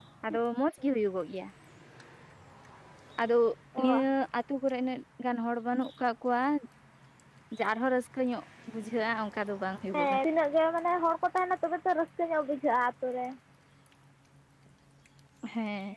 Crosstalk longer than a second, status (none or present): none